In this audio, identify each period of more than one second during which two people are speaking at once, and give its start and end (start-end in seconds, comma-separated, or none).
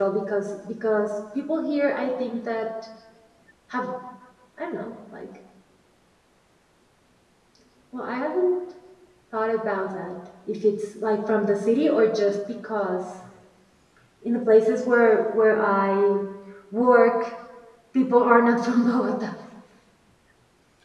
none